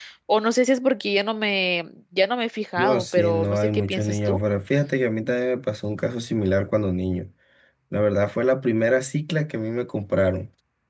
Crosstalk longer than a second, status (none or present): present